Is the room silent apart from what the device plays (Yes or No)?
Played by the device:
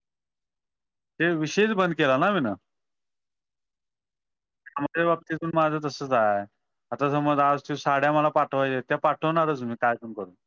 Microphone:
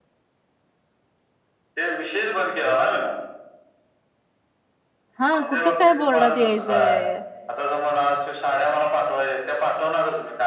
No